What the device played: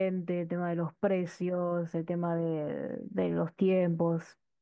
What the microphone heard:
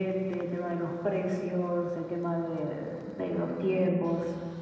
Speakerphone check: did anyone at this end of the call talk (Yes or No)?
No